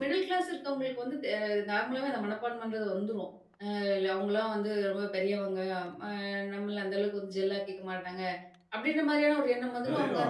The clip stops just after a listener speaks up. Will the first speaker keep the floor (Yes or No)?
No